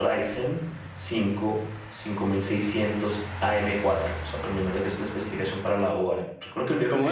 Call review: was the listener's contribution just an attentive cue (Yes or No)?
No